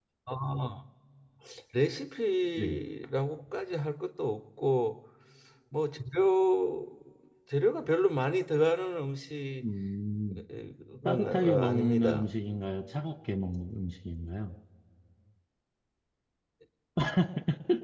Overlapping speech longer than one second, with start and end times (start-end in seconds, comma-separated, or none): 11.1-12.3